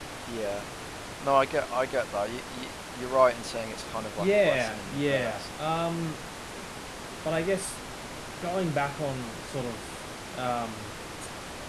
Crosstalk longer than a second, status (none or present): present